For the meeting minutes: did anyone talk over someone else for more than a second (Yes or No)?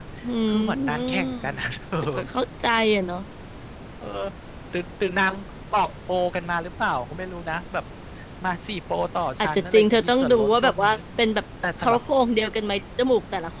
Yes